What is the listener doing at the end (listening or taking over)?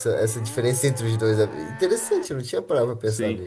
taking over